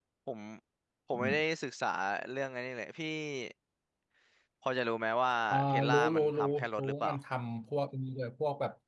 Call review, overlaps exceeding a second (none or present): present